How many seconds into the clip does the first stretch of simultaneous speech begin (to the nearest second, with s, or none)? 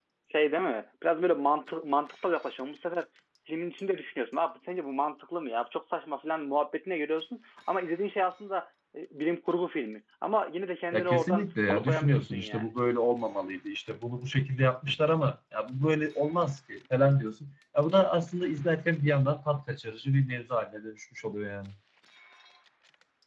11 s